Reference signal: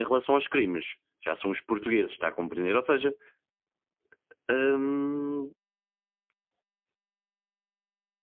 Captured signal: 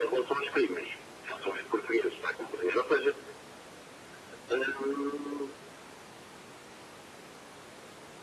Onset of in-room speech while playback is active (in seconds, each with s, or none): none